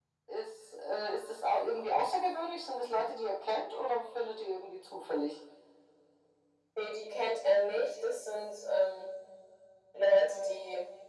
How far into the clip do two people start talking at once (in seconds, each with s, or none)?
none